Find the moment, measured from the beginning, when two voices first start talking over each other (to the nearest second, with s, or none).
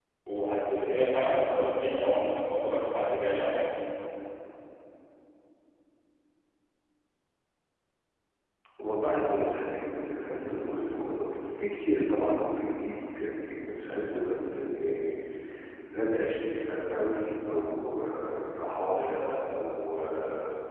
none